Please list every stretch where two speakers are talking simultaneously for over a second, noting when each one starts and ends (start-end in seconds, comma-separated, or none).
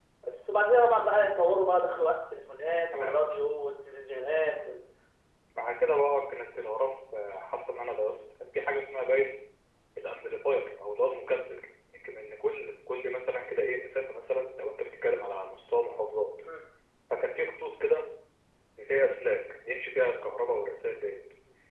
none